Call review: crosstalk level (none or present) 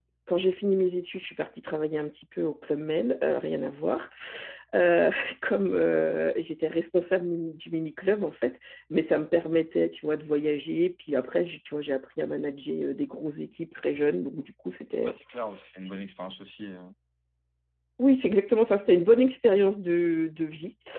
none